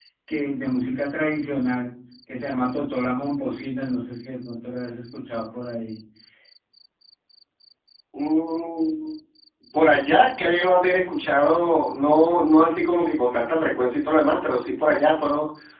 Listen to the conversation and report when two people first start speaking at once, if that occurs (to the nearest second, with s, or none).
none